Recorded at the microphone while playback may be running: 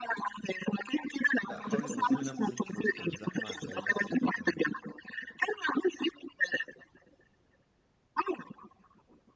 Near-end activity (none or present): present